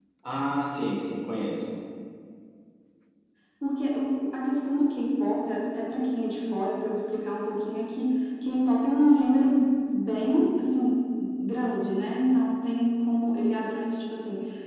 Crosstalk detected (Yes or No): No